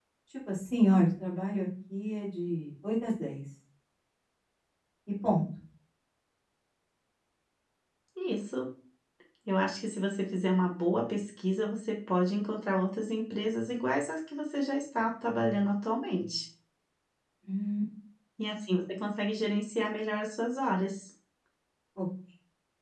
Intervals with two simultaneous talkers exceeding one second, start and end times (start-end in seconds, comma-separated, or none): none